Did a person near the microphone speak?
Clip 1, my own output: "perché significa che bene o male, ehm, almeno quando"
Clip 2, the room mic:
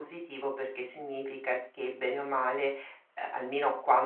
No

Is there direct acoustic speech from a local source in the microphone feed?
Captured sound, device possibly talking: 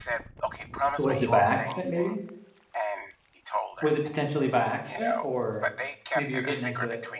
Yes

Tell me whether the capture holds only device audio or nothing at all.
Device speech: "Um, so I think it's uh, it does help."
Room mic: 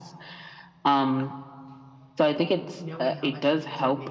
No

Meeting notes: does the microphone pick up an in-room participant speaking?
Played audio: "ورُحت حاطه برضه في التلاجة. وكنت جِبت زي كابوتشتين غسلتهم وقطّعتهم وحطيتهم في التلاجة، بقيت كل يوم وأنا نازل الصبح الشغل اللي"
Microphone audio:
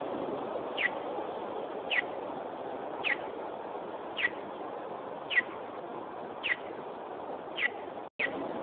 No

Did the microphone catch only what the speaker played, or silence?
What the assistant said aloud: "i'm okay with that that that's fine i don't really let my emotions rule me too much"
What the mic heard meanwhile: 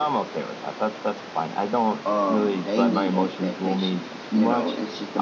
No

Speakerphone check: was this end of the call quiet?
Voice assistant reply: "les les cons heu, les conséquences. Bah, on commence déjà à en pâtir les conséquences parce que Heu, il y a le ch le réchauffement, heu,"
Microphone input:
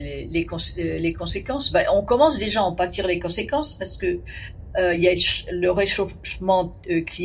Yes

